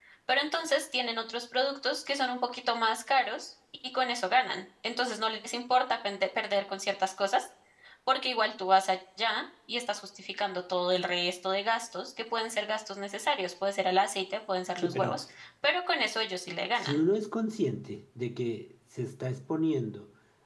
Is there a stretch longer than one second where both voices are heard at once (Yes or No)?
No